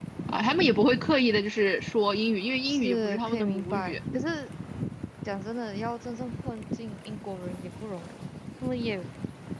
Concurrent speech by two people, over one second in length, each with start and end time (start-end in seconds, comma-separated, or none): 2.6-4.0